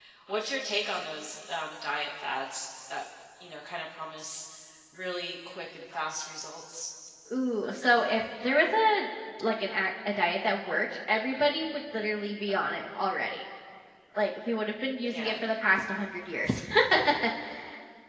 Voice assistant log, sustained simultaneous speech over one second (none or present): none